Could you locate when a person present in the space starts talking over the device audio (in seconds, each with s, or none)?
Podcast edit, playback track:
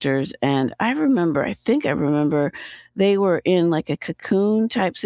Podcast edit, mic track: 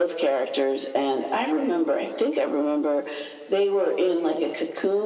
none